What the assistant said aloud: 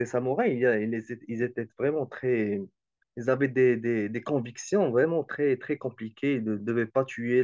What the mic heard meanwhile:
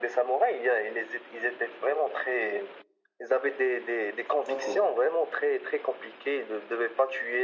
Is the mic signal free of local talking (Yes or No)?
No